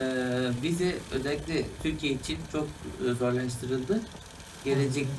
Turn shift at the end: No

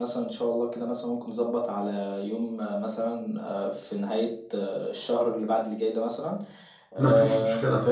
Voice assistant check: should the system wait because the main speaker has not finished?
Yes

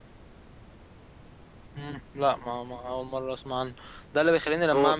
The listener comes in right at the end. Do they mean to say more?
No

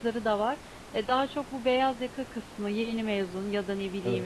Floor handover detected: No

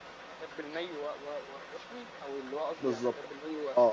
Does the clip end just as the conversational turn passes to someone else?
Yes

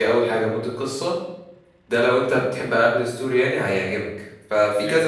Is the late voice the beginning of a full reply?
No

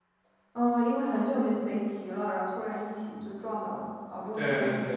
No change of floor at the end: No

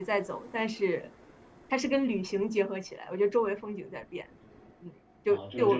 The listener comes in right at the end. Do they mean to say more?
Yes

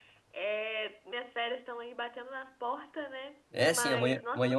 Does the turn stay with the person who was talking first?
No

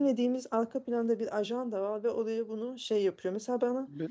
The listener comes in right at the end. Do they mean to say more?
No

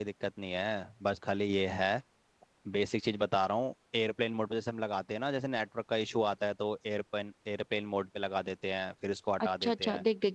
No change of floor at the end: No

